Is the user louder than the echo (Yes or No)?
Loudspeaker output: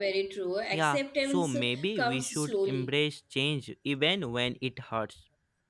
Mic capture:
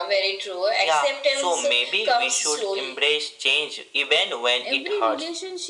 No